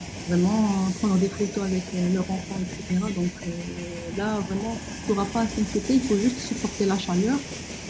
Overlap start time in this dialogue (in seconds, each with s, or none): none